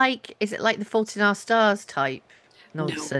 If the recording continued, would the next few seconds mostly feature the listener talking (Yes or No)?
Yes